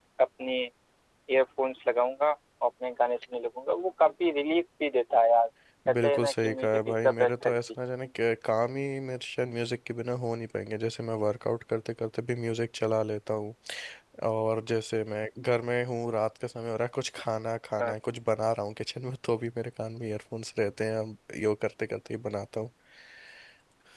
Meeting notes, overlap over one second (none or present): present